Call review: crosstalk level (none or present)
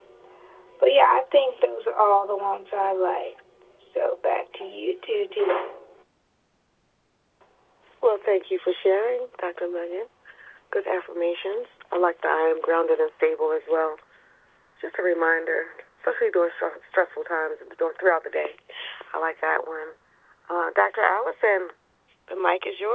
none